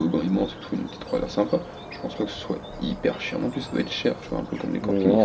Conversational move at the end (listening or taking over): taking over